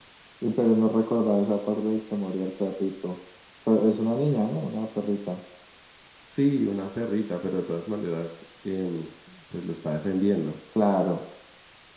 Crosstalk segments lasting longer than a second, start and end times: none

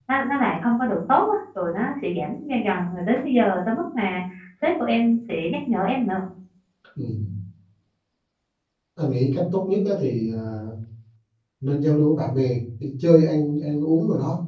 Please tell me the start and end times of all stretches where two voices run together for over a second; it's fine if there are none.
none

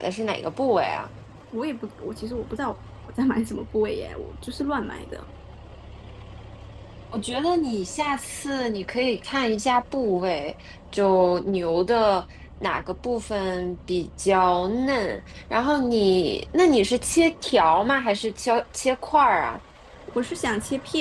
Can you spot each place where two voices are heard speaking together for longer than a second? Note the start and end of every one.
none

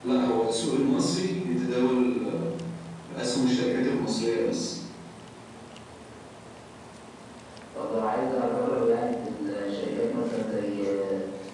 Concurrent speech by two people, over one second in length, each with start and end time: none

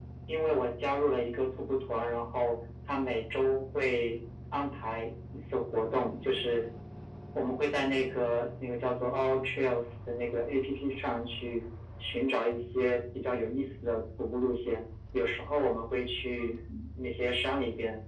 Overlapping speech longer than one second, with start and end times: none

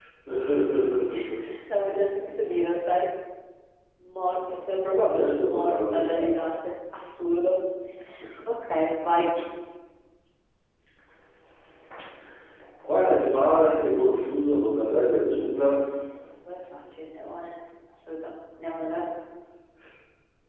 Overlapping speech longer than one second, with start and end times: 5.0-6.3

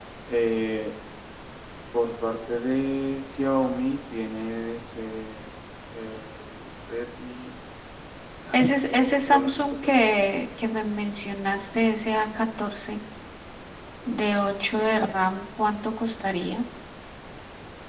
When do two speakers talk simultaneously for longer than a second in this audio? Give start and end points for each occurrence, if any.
8.5-10.0

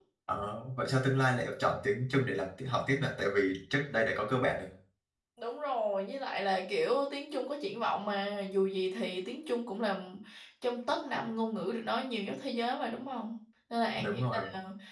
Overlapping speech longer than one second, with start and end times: none

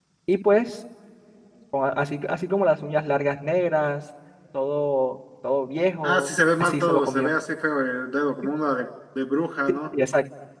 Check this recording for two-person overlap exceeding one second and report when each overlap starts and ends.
6.0-7.3

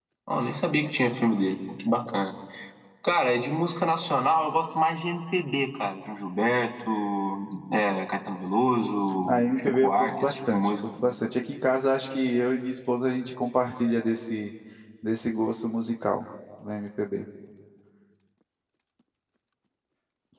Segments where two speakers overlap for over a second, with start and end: 9.3-10.7

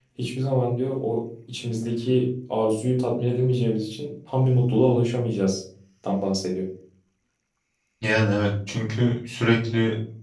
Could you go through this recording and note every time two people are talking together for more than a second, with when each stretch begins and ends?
none

